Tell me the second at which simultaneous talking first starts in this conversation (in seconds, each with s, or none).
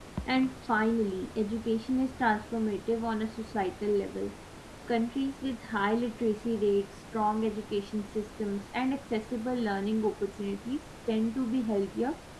none